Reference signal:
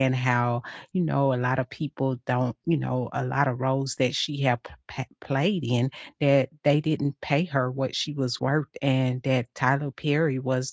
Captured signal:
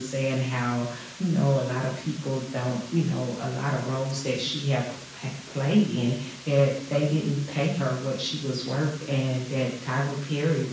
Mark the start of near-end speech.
none

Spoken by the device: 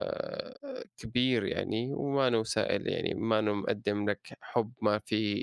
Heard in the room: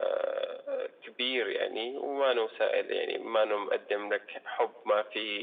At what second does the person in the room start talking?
none

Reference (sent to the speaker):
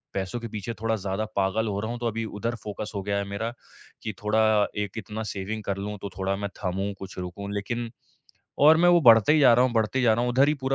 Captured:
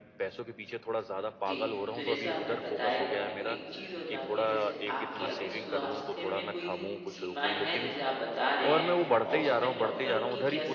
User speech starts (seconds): 1 s

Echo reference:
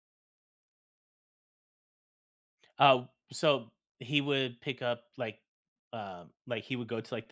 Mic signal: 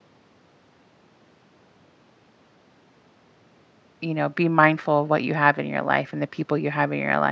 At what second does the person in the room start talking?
4 s

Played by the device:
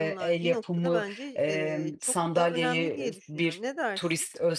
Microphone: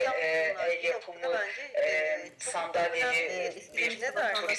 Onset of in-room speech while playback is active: 3 s

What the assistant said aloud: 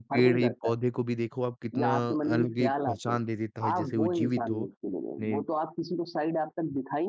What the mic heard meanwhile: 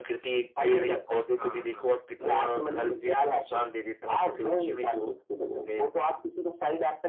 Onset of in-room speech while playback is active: 1 s

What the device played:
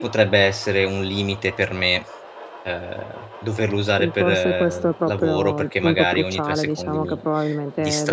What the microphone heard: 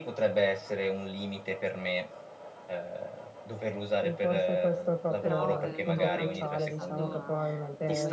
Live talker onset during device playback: 5 s

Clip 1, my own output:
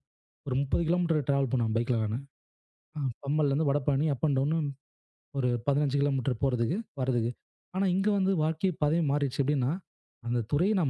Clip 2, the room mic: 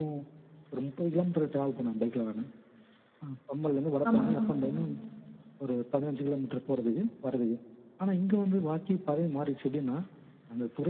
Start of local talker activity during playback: 4 s

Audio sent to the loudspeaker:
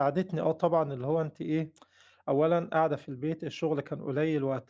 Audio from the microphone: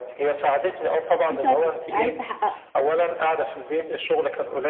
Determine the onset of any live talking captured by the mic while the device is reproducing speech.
1 s

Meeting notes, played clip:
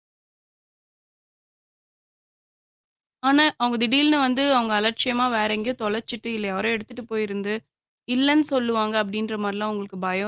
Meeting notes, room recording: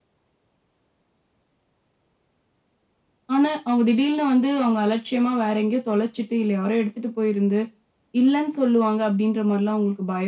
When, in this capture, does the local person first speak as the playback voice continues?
none

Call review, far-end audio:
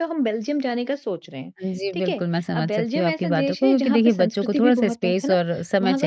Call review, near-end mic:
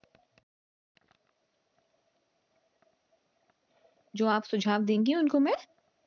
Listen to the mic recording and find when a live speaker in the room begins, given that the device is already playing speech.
4 s

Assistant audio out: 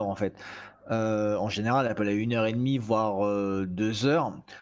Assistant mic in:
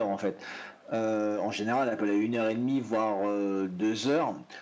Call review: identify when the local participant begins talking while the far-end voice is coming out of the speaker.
none

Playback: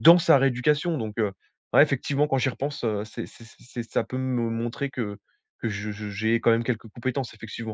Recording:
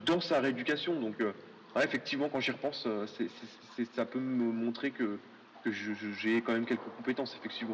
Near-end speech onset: none

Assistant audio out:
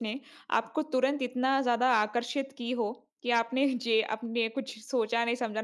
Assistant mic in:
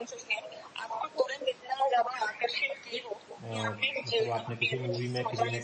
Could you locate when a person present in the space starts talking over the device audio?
3 s

